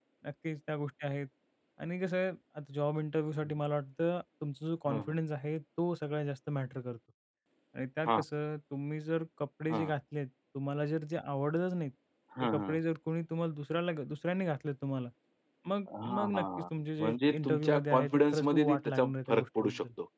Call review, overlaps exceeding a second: present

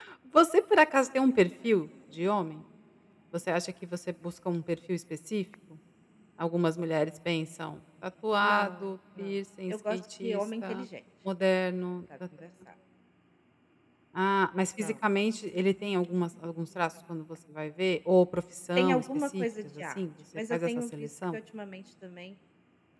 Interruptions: present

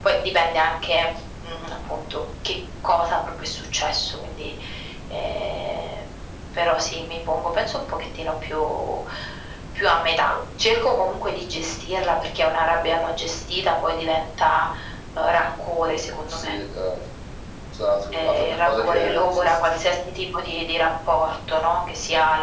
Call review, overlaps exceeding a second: present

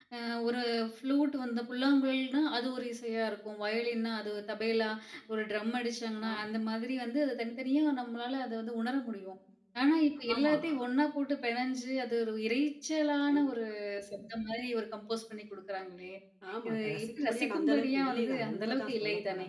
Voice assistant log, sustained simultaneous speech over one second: present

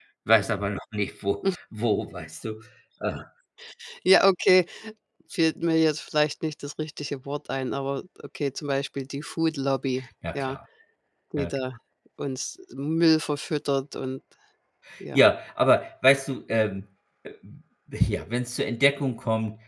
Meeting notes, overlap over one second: none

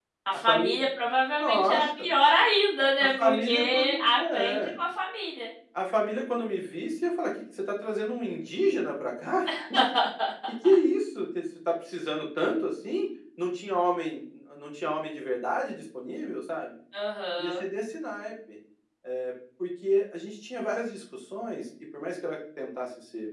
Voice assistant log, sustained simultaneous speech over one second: present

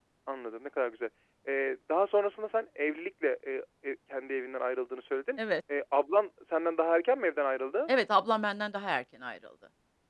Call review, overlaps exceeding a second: none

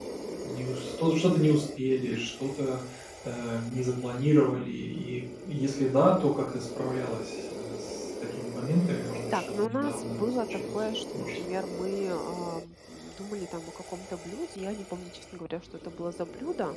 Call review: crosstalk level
present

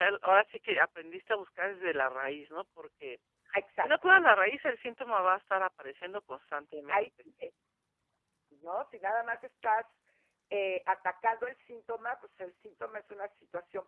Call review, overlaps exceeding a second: none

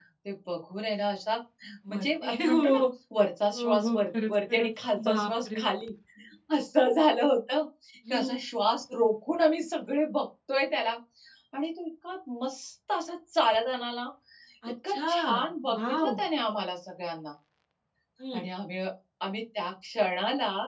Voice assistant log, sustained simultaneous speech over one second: present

